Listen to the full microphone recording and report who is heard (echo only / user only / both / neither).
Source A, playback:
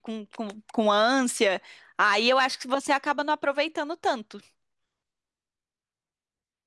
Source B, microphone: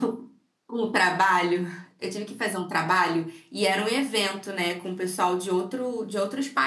user only